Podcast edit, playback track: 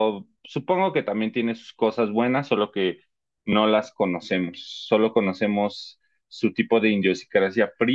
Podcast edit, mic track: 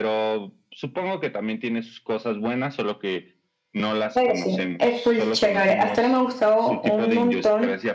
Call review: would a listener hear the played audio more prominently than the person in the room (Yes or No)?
No